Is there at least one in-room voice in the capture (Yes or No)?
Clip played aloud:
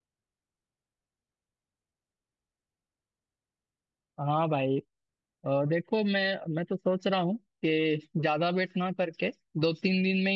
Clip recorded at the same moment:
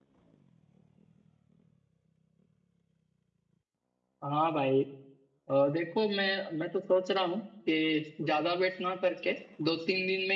No